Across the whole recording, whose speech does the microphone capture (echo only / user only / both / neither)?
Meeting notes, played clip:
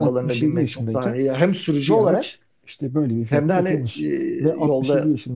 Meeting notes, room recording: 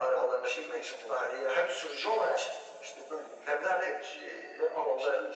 echo only